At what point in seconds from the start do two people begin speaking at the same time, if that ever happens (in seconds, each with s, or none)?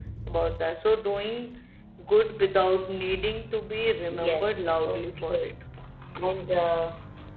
4.1 s